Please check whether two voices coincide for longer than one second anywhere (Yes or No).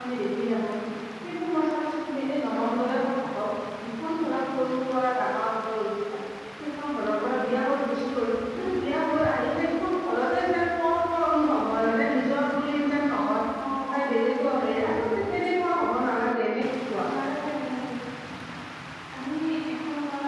No